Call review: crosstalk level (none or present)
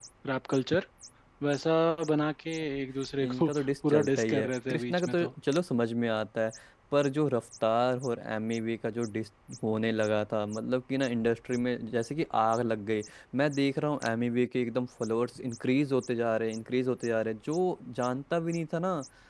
present